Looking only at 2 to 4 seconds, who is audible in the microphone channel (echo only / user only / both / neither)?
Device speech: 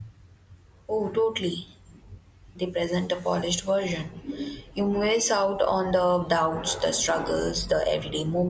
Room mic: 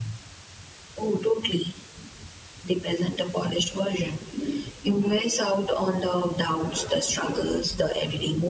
echo only